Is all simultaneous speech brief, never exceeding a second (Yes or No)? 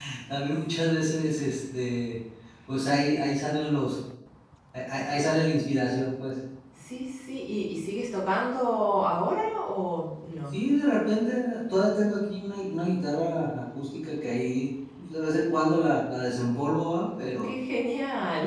Yes